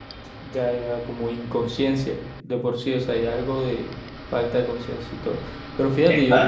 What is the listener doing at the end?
listening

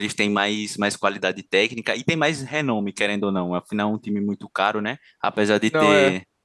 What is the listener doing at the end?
listening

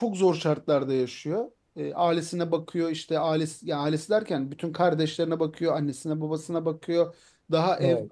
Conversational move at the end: listening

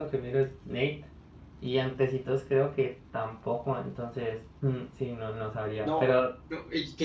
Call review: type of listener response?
taking over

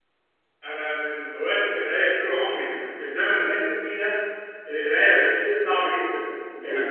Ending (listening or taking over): listening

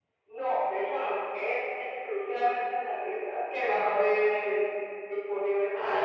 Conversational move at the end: taking over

